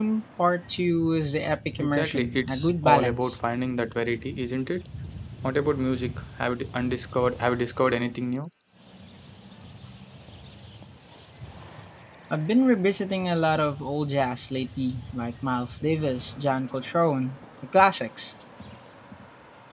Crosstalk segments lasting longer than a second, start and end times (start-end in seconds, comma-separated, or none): 1.8-3.4